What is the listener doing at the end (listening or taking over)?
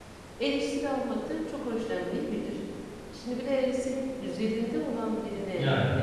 listening